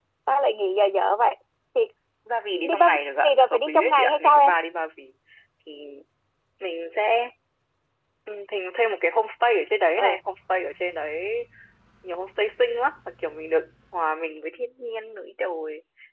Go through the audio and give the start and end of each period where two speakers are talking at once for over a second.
2.6-4.5

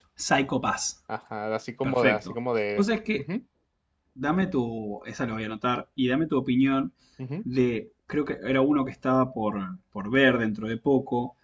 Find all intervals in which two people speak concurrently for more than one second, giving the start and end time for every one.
none

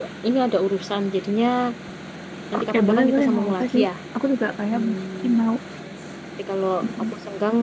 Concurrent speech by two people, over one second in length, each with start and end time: 2.6-3.8

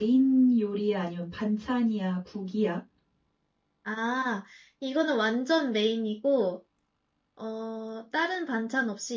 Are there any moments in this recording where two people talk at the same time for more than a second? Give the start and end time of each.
none

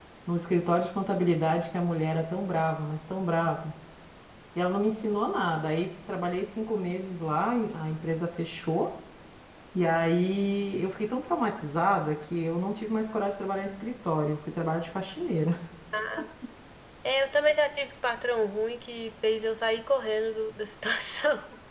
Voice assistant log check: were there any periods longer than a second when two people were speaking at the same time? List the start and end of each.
none

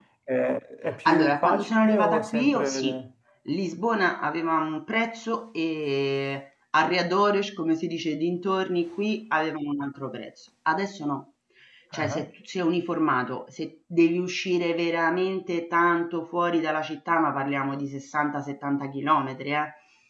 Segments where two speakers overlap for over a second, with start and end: 1.1-3.0

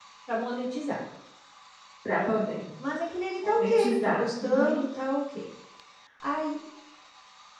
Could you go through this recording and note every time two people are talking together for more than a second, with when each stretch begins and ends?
3.4-4.8

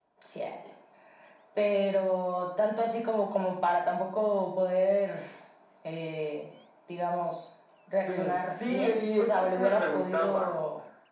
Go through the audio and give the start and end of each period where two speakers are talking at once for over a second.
8.1-10.5

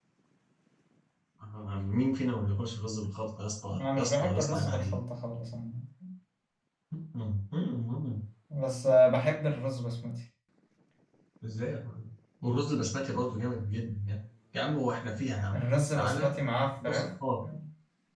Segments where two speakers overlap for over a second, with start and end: 3.8-5.0

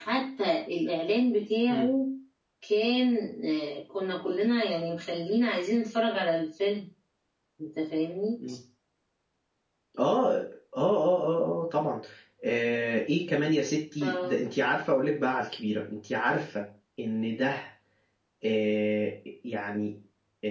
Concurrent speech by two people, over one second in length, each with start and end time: none

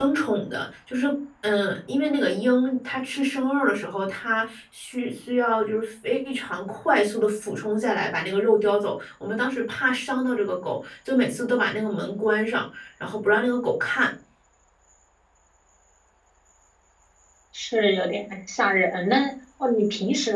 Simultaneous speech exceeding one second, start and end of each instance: none

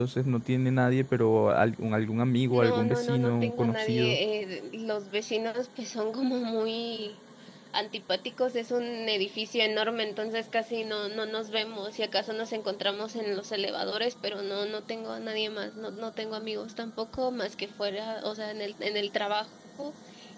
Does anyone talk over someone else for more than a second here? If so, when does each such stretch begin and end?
2.5-4.2

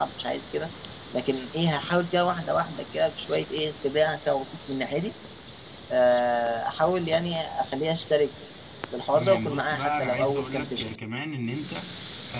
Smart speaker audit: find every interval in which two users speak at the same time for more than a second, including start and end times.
9.1-10.9

